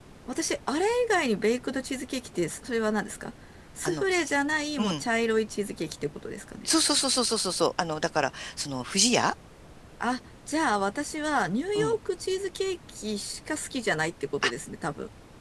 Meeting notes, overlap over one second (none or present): none